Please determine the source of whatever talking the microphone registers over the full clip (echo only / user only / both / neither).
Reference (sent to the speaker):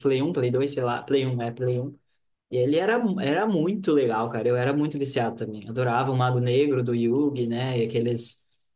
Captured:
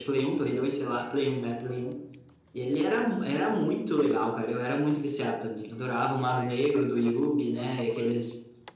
both